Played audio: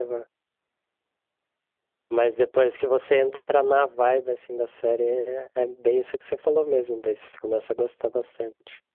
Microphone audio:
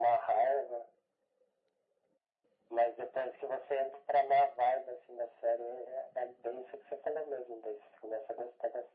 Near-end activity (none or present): none